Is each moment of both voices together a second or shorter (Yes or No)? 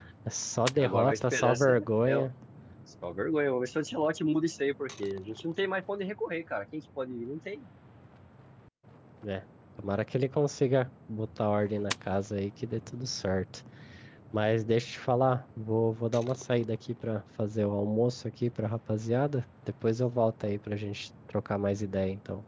No